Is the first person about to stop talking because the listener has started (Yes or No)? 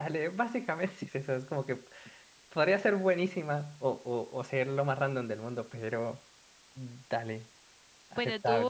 Yes